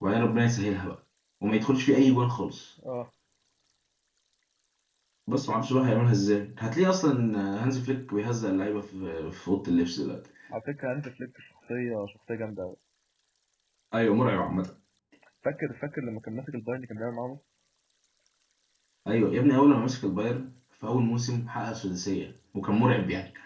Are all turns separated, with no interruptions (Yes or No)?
Yes